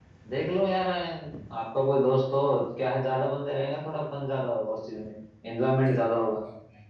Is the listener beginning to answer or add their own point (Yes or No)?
Yes